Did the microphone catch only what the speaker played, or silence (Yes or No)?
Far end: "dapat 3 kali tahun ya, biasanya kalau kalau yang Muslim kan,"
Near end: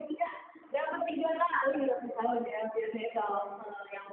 Yes